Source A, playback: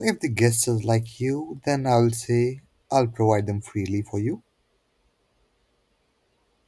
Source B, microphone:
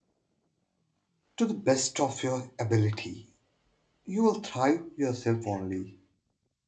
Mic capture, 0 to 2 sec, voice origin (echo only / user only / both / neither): user only